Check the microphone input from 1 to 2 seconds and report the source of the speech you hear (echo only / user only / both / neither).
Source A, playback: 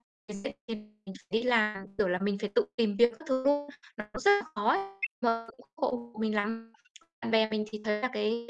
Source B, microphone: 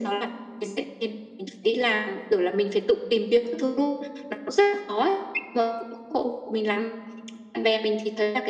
echo only